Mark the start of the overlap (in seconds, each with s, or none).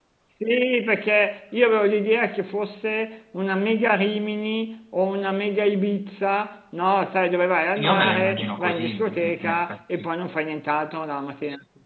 7.8 s